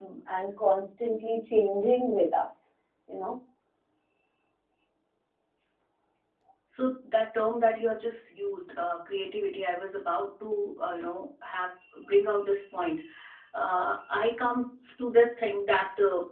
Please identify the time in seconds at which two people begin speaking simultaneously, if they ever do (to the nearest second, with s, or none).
none